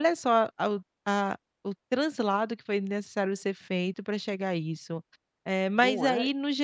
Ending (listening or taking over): listening